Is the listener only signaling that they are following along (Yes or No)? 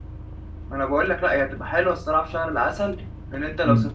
No